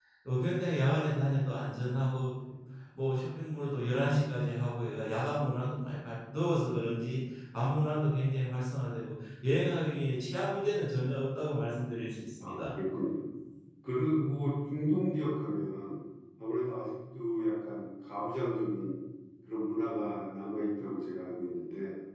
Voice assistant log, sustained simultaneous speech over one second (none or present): none